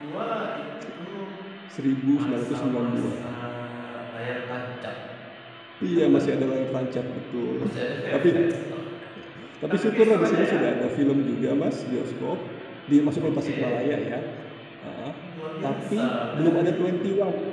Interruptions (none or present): present